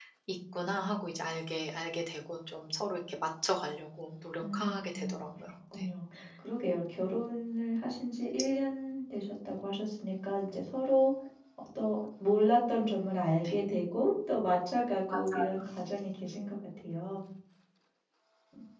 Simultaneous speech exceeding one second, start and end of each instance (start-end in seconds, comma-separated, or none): 4.4-5.9